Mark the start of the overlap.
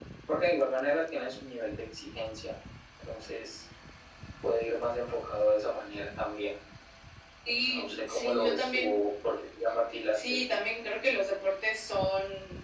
7.6 s

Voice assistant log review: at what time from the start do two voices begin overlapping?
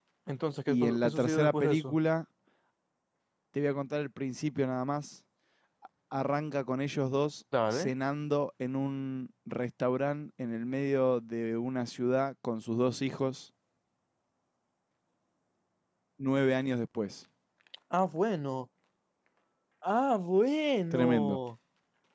0.7 s

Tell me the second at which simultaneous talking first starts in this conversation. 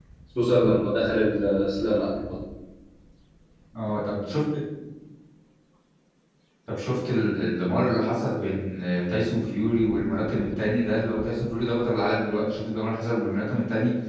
none

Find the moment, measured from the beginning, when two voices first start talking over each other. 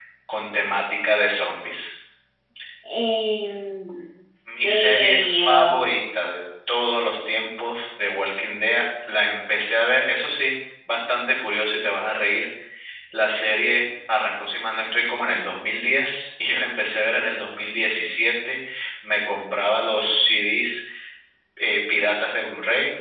4.6 s

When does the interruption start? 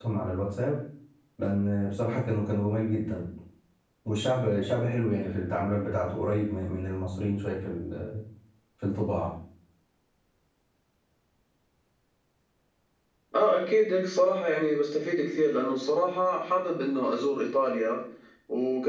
none

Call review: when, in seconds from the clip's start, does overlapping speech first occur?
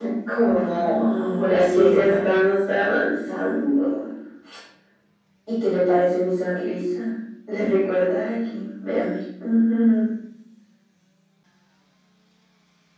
0.6 s

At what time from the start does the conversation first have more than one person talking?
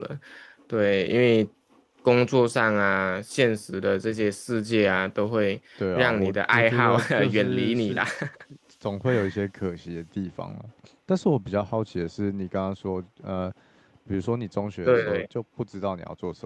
6.0 s

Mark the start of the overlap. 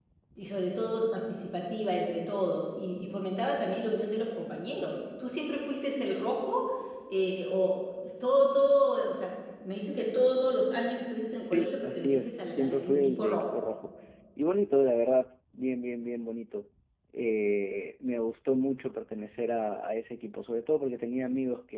11.4 s

